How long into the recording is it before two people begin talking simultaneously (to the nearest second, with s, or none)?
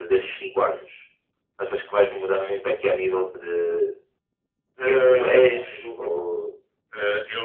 5 s